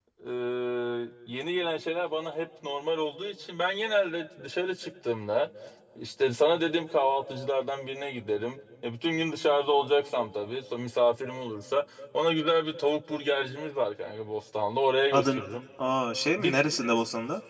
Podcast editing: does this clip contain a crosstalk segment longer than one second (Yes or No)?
No